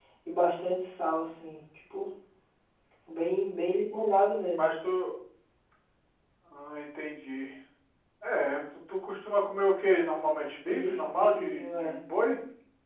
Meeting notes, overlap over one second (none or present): present